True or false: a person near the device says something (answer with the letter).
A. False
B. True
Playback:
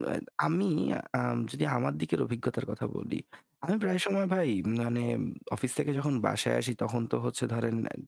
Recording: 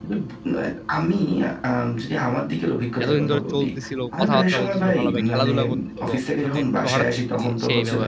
B